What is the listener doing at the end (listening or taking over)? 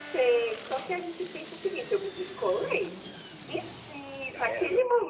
listening